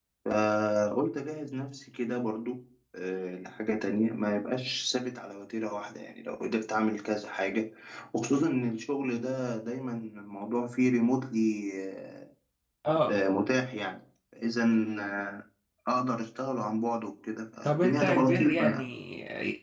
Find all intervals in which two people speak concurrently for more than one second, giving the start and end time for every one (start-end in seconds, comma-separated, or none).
17.6-18.9